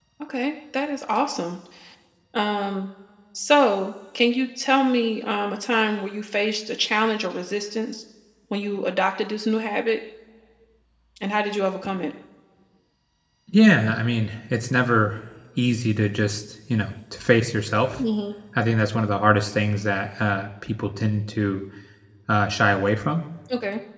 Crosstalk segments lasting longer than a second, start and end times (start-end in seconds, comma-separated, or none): none